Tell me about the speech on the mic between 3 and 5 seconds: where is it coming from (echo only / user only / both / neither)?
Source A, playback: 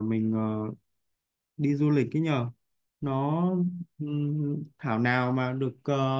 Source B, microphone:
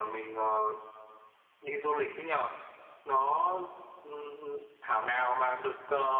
echo only